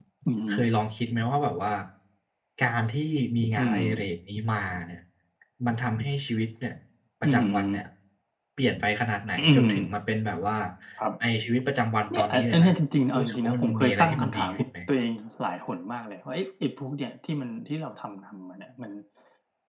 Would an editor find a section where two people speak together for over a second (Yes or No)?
Yes